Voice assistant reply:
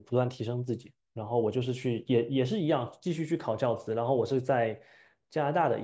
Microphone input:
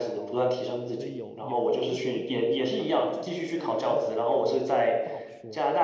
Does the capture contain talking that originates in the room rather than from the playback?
Yes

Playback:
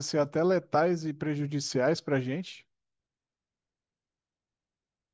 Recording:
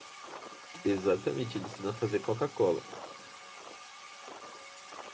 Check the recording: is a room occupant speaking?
Yes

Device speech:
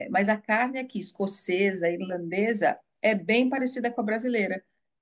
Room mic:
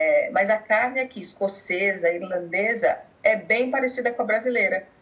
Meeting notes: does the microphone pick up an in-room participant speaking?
No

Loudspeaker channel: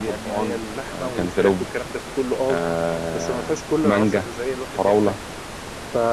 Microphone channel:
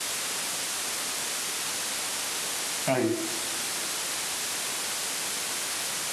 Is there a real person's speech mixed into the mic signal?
Yes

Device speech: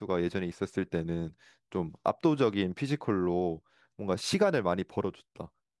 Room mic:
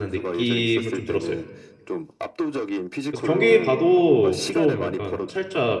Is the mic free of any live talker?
No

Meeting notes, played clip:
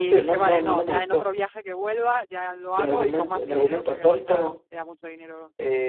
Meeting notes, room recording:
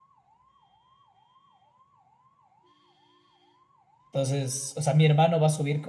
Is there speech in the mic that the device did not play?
Yes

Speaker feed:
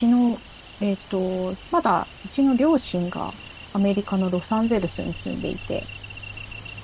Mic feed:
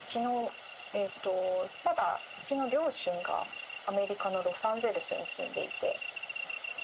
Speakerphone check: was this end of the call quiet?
Yes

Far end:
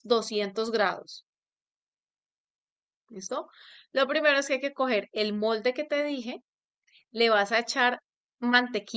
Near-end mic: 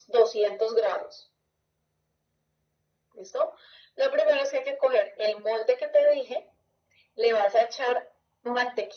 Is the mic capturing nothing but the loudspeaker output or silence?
Yes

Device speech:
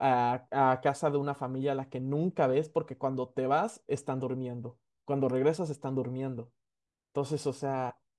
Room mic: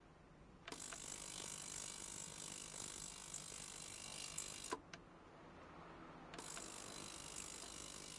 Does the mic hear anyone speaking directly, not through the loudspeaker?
No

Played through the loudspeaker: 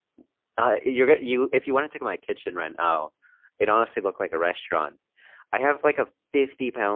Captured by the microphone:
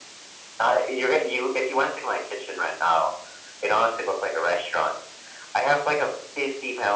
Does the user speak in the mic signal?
No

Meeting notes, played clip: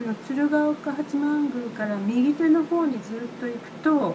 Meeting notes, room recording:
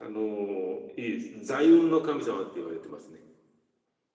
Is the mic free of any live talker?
No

